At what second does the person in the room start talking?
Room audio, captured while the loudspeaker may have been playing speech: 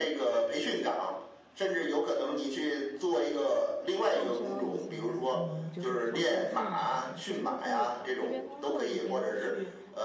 4.1 s

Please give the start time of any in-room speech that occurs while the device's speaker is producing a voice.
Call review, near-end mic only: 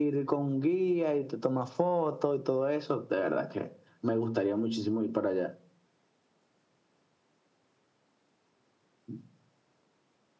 none

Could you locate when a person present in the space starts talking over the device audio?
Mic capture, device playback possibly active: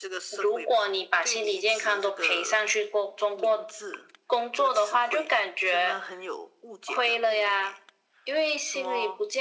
none

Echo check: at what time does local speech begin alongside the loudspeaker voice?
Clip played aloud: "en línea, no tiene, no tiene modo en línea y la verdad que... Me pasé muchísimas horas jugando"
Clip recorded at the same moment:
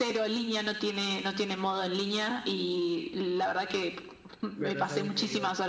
4.6 s

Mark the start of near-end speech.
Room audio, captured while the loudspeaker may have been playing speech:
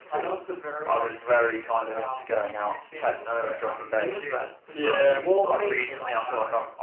4.0 s

